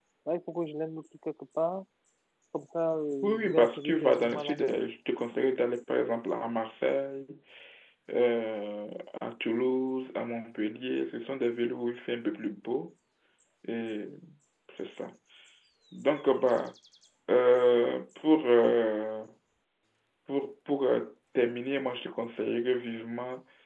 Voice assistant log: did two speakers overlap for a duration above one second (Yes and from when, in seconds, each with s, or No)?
Yes, from 3.2 s